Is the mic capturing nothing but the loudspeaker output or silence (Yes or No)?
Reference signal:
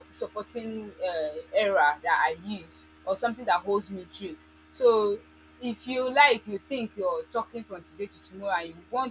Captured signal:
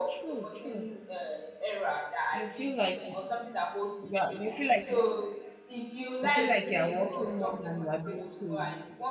No